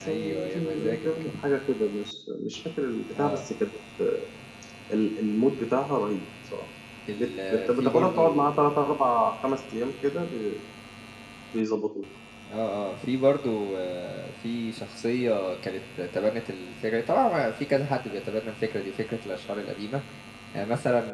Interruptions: present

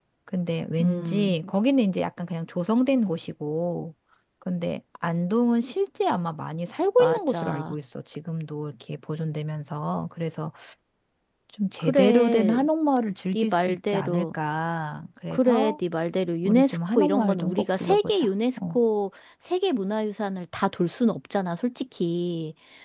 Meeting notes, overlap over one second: present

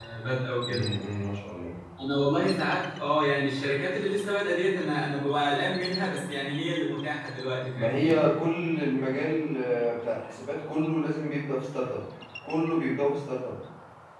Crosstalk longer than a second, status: none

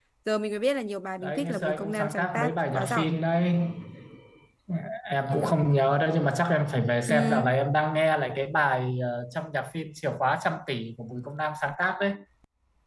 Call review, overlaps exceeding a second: present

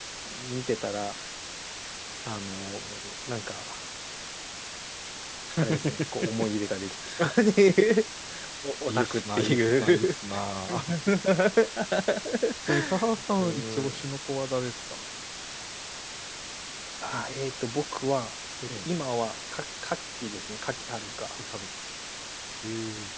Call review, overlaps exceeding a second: present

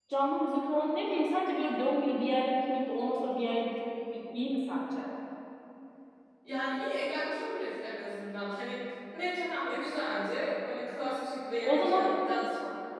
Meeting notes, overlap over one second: none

